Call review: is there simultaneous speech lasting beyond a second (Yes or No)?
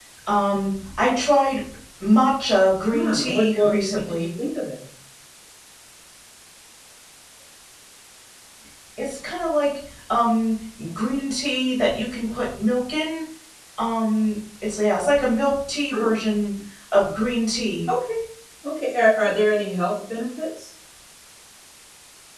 Yes